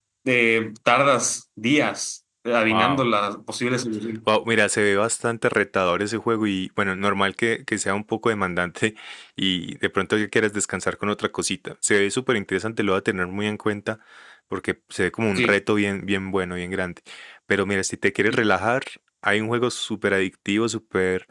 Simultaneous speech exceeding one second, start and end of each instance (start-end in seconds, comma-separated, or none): none